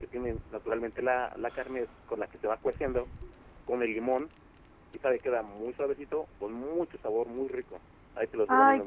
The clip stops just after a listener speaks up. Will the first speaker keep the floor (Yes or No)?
No